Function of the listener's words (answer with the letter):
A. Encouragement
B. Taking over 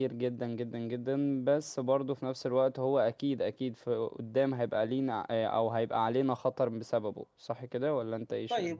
B